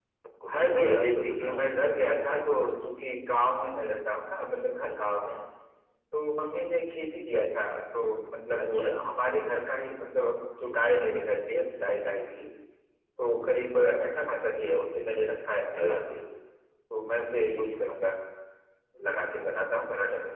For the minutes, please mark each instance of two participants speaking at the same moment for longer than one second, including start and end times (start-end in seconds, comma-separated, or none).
0.5-1.8